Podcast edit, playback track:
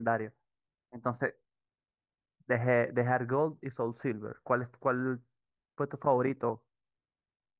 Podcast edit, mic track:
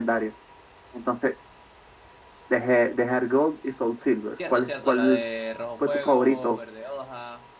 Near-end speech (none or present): present